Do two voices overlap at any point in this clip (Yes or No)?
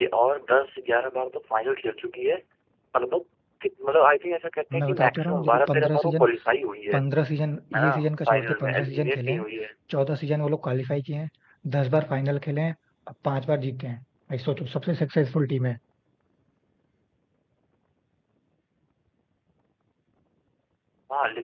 Yes